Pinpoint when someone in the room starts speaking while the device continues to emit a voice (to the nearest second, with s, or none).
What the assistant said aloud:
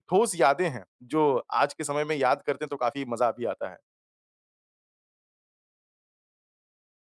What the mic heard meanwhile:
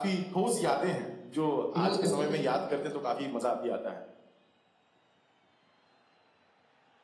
2 s